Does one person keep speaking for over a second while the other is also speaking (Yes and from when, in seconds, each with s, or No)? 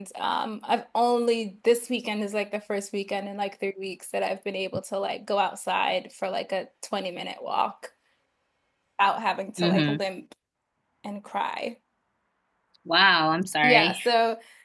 No